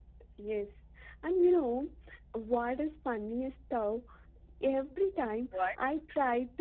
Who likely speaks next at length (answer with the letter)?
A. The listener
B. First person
B